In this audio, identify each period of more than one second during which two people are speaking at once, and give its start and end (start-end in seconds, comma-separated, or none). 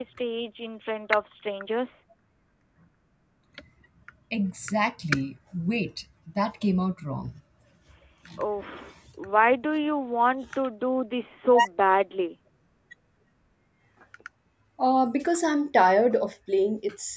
none